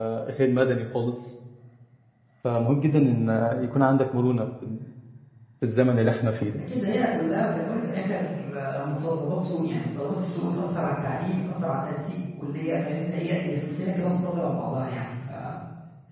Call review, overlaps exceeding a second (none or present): none